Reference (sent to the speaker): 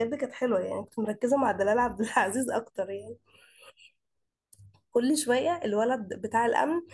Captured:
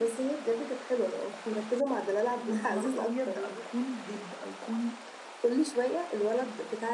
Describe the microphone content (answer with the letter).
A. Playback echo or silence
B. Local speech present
B